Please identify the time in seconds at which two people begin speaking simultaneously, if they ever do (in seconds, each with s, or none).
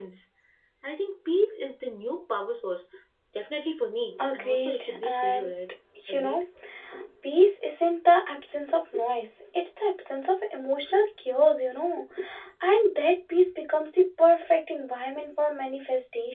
4.2 s